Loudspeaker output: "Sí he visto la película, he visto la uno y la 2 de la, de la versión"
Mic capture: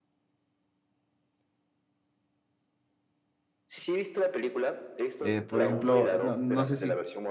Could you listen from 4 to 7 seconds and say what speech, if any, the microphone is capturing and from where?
both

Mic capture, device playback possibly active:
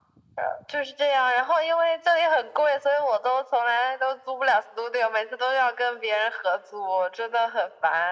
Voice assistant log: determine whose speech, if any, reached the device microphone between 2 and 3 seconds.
echo only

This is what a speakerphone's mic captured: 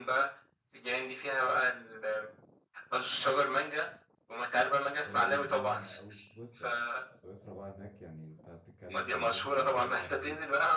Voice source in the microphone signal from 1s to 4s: echo only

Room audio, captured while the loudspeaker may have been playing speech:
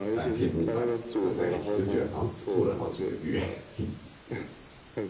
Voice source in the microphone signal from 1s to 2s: both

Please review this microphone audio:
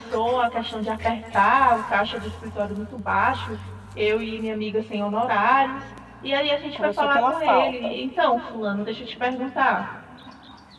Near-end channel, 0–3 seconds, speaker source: echo only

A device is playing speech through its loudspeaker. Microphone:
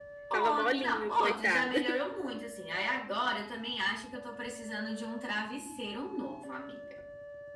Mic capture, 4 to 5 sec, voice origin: echo only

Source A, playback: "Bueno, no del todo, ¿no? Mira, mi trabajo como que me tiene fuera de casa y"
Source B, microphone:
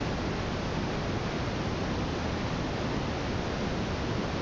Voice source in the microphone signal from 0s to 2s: neither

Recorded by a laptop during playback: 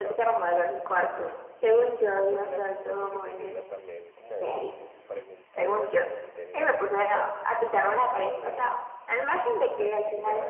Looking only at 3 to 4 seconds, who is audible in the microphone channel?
both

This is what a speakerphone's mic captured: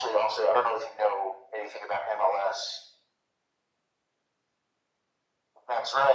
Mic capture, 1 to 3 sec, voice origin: echo only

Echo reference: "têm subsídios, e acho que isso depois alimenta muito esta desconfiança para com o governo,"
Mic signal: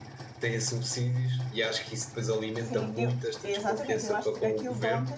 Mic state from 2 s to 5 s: both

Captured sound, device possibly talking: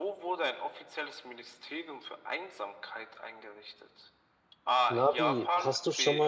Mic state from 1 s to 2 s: echo only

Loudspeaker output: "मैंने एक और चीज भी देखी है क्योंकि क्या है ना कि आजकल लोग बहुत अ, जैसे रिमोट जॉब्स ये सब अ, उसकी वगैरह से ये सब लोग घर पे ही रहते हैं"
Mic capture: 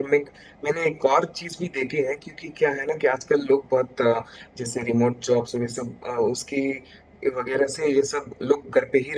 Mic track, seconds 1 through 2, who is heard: echo only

